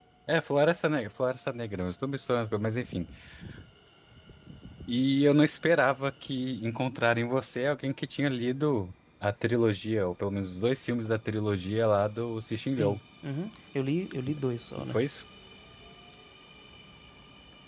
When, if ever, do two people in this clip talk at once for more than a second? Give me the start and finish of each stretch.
none

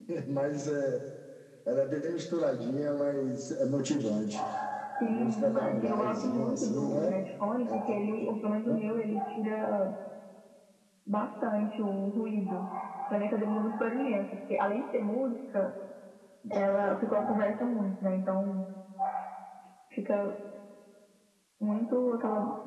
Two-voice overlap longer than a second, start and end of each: 5.0-7.1

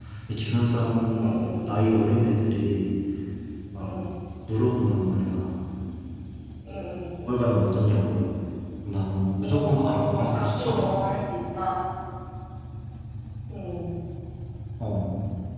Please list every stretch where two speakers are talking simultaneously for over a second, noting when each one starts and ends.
9.4-10.9

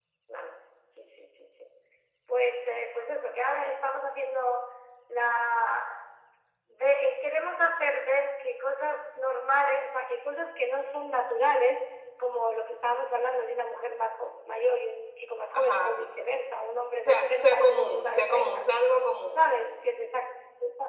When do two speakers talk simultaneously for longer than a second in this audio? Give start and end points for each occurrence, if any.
17.0-18.7

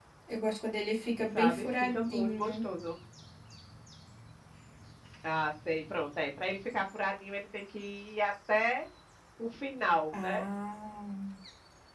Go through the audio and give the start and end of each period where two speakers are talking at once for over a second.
1.3-2.5

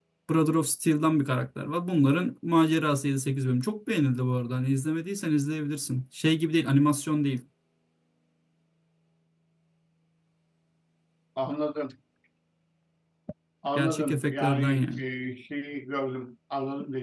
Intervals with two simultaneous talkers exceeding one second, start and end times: 13.8-15.0

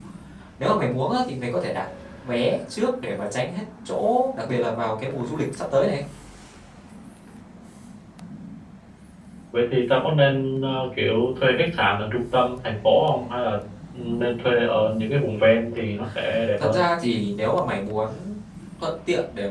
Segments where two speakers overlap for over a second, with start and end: none

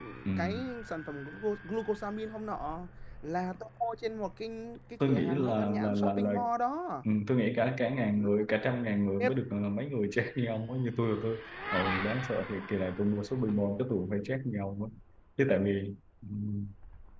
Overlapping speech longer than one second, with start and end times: 5.1-6.3

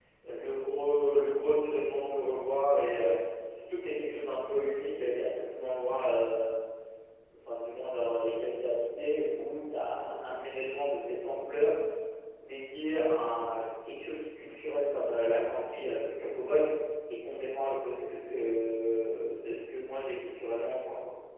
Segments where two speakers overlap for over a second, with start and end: none

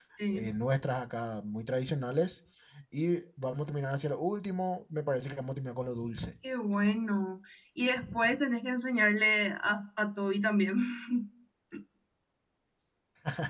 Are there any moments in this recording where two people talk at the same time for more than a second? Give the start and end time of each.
none

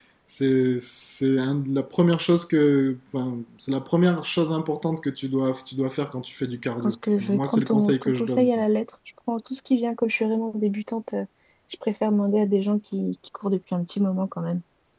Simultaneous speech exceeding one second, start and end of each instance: 6.8-8.6

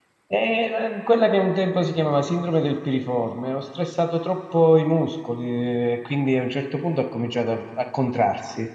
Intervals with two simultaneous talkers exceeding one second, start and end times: none

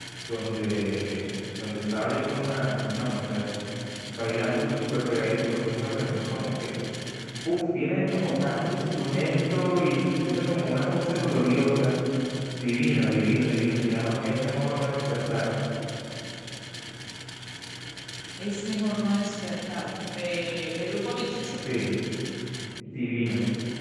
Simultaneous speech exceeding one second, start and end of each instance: none

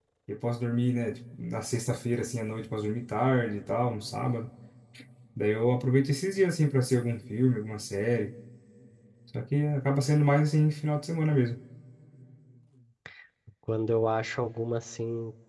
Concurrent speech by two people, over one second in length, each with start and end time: none

